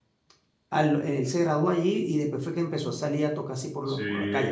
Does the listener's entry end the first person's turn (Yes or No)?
Yes